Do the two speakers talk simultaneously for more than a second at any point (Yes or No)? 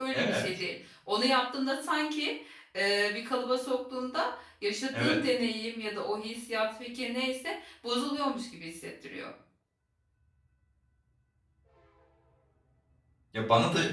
No